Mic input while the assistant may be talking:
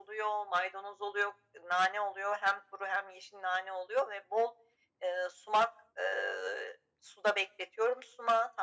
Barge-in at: none

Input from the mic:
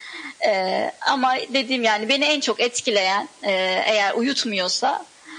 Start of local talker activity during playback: none

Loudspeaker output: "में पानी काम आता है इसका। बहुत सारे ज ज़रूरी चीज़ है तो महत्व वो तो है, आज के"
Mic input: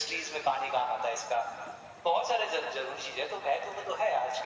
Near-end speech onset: none

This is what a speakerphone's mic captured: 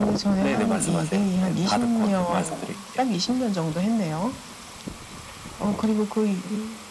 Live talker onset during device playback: none

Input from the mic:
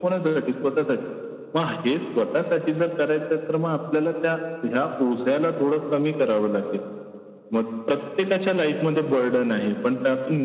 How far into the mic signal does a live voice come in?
none

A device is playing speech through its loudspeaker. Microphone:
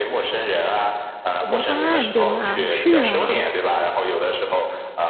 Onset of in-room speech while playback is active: 1.4 s

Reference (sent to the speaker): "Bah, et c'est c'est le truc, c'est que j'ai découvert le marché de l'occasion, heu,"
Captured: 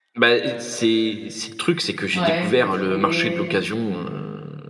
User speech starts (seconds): 2.1 s

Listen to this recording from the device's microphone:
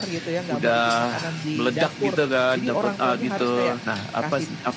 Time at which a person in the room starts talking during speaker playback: none

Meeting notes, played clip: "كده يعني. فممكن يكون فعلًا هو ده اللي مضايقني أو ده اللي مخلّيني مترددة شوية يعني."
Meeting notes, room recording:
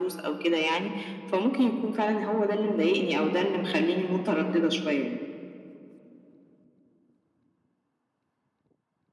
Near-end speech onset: none

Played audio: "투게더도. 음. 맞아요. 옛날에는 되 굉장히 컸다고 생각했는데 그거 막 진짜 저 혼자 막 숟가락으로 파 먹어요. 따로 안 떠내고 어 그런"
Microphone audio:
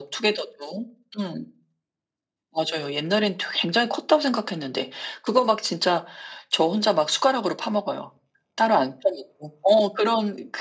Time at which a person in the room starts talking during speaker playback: none

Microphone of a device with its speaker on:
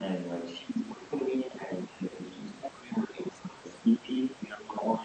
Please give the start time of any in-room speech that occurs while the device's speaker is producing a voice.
none

